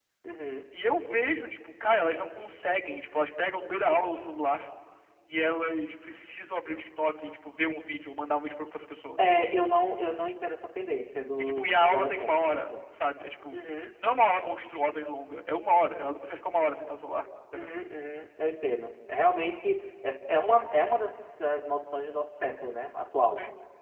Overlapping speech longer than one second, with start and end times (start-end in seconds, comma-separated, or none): 11.4-12.7